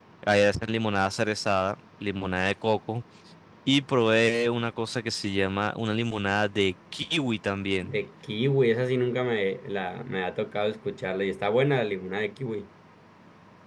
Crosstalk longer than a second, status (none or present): none